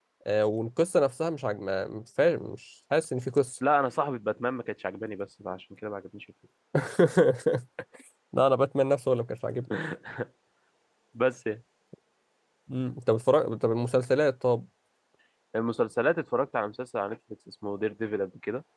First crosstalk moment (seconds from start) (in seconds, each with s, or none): none